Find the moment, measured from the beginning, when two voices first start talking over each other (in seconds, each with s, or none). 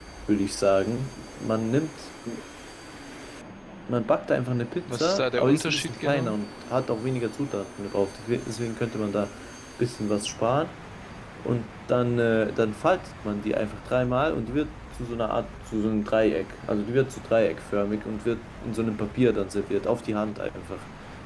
4.9 s